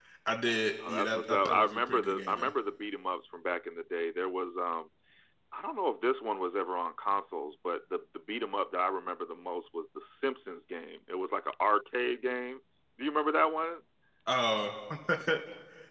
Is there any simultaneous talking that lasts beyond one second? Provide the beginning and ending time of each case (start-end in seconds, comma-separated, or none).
0.9-2.5